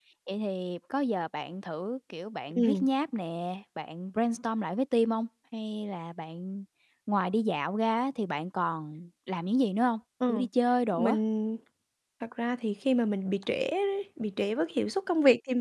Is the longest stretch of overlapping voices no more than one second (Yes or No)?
Yes